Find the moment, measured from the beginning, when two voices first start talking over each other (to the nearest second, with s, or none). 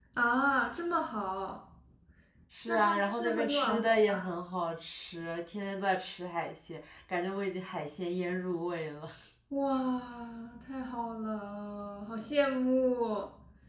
3 s